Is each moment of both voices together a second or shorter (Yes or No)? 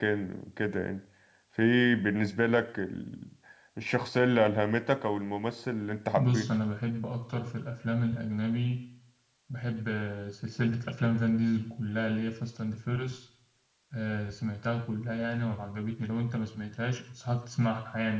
Yes